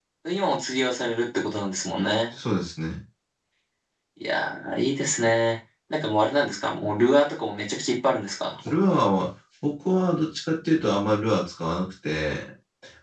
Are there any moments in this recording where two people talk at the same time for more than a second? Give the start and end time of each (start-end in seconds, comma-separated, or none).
none